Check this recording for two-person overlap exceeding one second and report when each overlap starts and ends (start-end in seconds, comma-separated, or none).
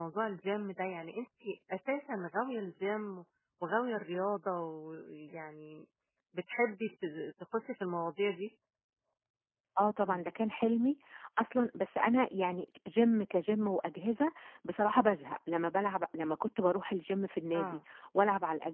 none